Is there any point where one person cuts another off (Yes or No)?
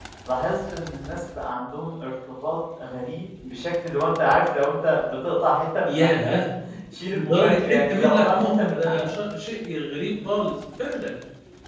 Yes